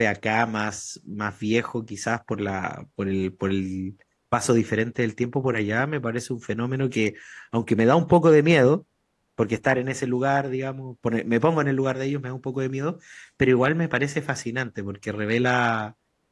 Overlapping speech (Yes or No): No